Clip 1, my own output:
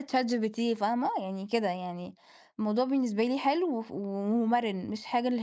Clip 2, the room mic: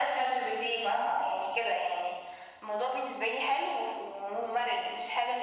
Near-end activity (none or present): none